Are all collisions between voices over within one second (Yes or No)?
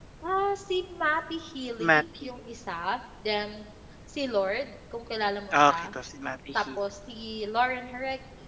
Yes